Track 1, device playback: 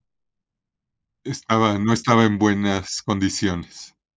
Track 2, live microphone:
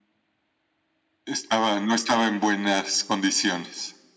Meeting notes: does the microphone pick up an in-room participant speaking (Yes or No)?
No